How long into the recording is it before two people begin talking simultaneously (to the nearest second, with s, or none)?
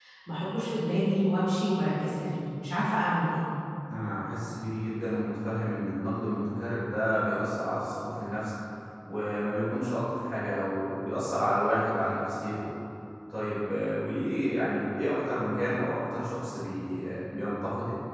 none